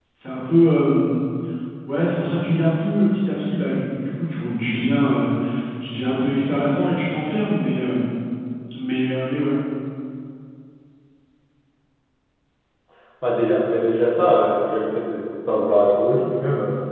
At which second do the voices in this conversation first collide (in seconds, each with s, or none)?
none